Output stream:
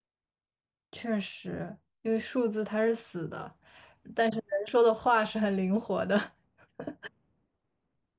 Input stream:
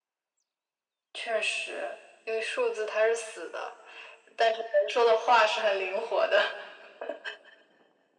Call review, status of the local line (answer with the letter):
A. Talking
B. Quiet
B